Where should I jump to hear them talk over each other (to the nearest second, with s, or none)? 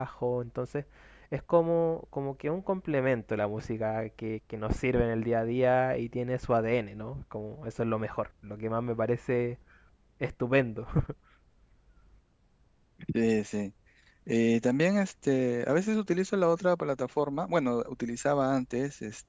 none